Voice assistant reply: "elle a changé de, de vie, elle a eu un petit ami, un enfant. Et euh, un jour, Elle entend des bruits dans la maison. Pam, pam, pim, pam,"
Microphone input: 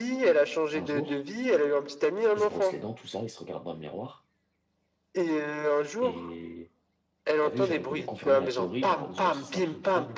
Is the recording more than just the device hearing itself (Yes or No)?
Yes